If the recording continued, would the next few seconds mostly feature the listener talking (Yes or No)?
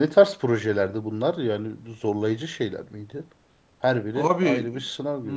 Yes